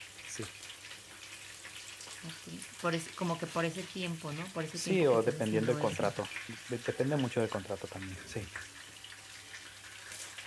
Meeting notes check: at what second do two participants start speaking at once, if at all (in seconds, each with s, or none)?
4.8 s